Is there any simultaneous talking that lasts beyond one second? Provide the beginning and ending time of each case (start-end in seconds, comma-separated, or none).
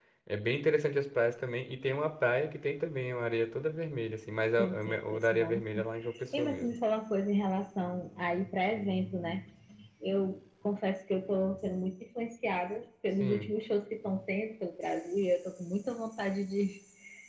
4.6-5.9